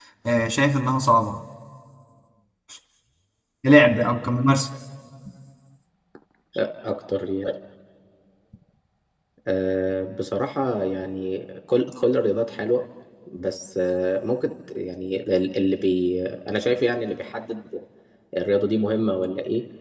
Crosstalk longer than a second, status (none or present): none